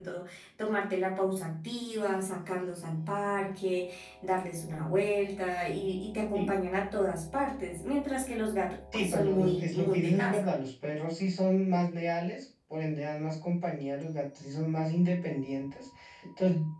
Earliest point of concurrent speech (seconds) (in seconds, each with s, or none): 8.9 s